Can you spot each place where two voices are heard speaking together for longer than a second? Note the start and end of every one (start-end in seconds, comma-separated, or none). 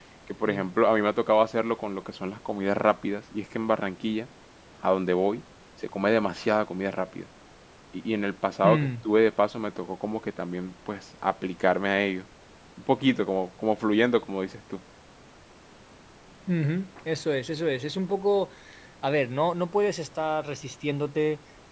none